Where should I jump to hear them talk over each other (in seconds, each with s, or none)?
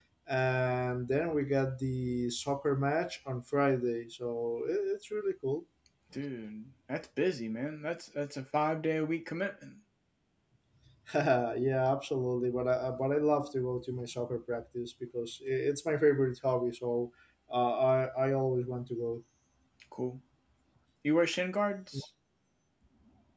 none